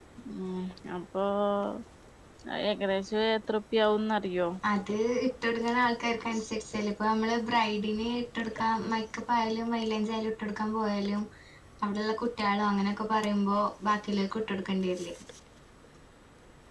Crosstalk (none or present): none